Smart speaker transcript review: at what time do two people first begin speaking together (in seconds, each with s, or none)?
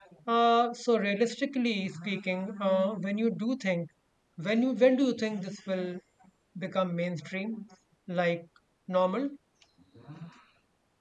none